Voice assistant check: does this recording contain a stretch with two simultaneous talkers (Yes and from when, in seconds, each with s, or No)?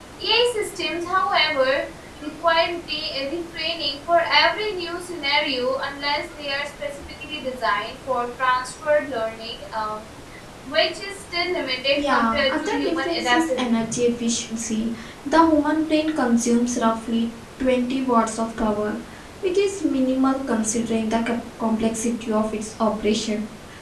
Yes, from 12.0 s